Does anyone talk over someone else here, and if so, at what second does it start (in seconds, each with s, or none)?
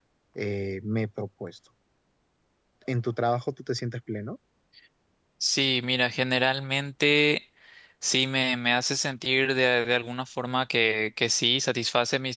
none